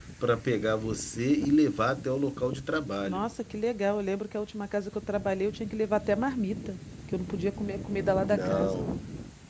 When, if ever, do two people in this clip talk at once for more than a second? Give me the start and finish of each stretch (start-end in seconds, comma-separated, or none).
none